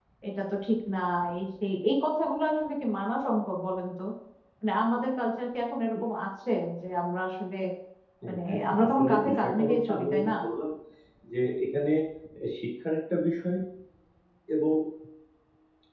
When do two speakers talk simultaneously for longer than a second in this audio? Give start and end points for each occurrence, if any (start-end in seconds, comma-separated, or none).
8.4-10.3